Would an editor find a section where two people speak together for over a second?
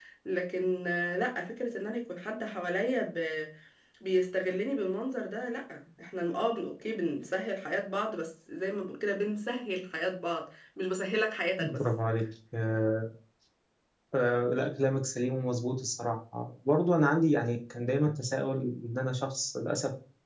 No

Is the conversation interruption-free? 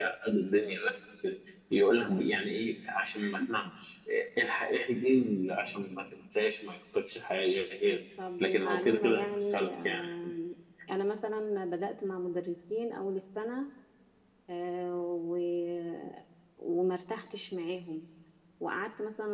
No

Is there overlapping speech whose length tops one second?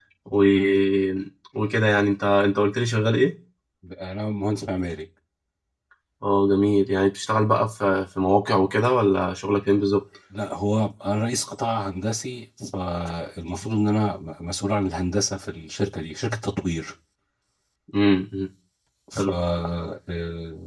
No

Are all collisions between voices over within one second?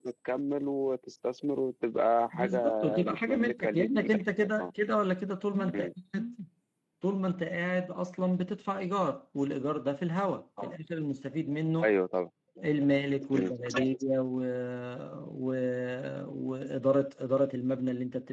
No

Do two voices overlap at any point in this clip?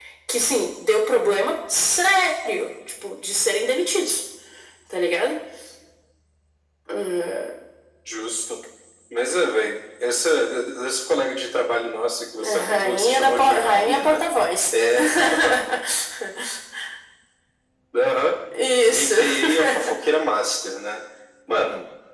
Yes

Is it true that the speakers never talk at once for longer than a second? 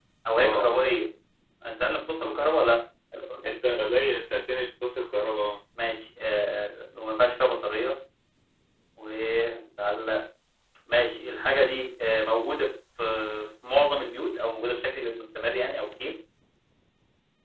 Yes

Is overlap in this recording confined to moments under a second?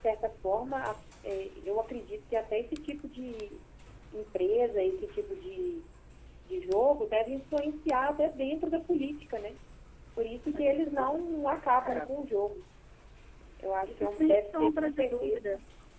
No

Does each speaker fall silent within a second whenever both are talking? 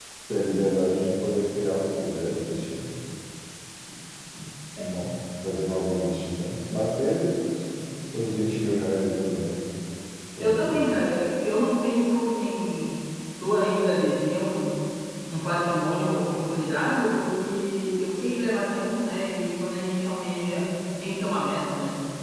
Yes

